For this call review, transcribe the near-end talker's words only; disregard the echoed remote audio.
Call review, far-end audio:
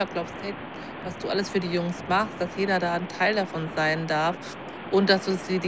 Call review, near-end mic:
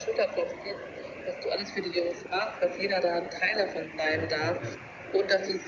Ja, ja, ja.

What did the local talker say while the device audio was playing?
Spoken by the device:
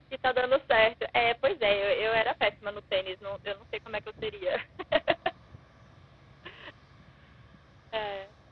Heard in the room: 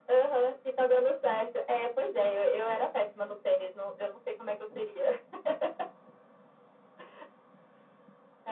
none

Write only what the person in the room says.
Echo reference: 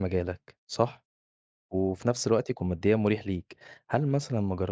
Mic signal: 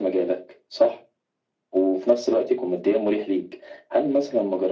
none

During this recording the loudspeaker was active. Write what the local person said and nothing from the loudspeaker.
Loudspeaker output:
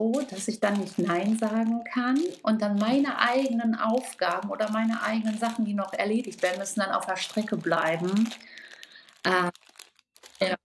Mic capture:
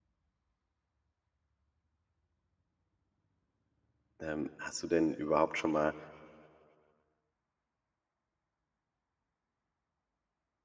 ähm, hast du denn überhaupt schon mal,

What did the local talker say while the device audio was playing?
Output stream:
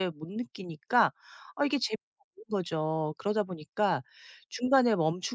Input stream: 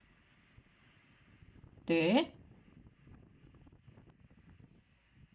네.

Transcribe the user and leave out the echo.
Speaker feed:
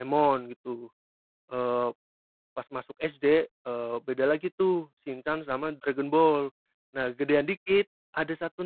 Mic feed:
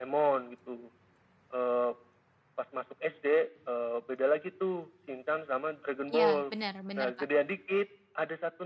Iya bener bener, Kak.

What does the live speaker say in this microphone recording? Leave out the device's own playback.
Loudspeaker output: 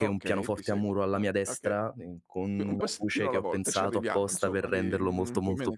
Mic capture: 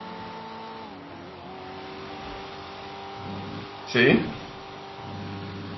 Sì.

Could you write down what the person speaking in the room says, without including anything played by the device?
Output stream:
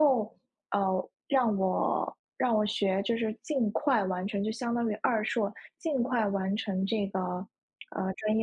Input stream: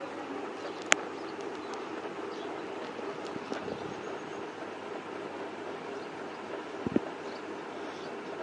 none

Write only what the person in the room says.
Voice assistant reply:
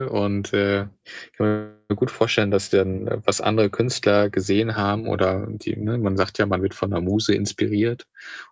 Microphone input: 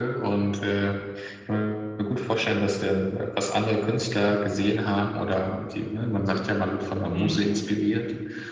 Mhm.

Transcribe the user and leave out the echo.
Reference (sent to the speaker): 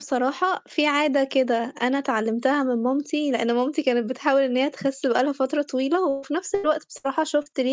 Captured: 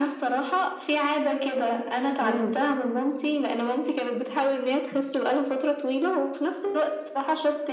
إمم.

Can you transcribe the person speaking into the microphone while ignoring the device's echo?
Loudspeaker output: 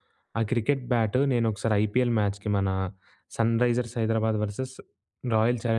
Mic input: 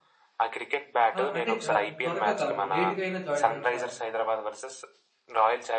ఆ! అంటే ఆహ్, త్వరగా కాదు లేట్‌గా అయినా జాయిన్ అవ్వొచ్చా అని?

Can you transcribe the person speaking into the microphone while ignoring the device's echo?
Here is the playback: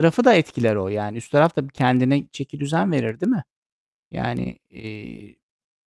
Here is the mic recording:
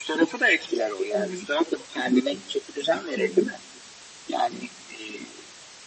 Hı hı. Çok haklısın. Hı hı.

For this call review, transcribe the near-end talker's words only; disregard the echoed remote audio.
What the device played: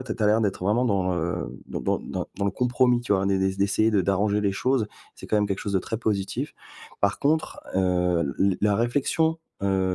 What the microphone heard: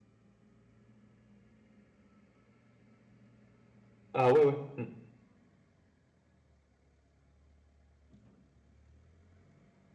Ah, ouais, ouais. Mmh.

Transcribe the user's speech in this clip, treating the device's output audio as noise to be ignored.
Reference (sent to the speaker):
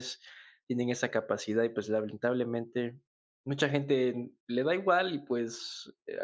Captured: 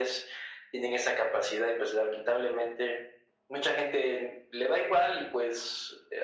none

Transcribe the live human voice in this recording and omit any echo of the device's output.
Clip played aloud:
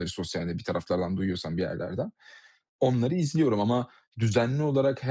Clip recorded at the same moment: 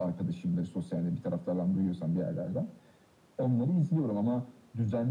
none

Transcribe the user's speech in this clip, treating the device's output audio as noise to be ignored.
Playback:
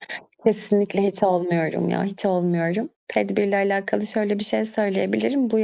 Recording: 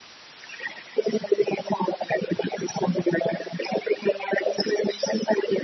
none

